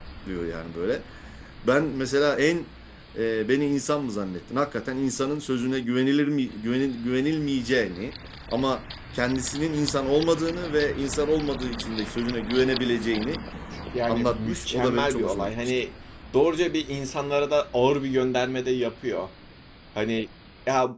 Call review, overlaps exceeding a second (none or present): present